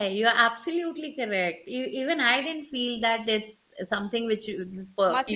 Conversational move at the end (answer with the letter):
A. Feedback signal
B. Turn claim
B